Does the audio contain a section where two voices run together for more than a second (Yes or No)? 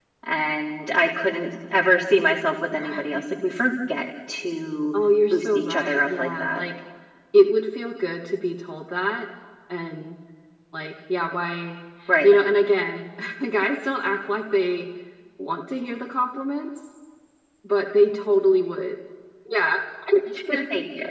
Yes